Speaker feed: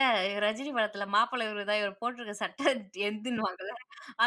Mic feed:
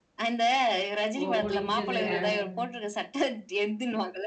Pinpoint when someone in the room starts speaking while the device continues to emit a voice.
1.1 s

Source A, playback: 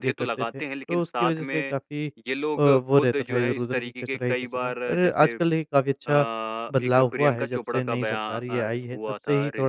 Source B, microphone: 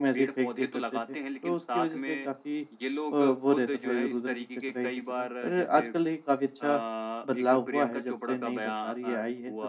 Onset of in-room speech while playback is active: none

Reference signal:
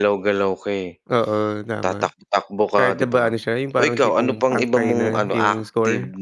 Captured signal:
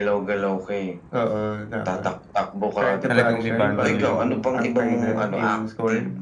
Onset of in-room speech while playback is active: 3.1 s

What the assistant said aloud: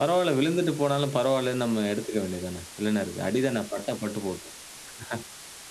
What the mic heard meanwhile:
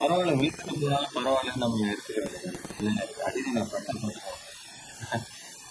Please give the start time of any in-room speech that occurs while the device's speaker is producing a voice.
none

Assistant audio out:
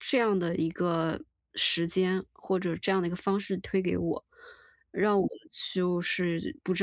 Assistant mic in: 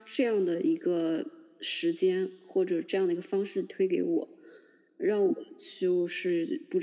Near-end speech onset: none

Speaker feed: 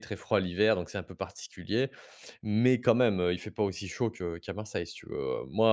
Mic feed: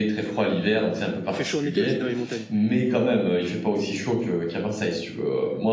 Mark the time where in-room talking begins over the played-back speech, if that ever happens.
1.3 s

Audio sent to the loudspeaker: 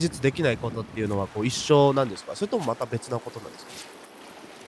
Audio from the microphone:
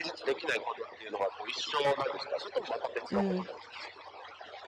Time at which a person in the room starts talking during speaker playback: 3.1 s

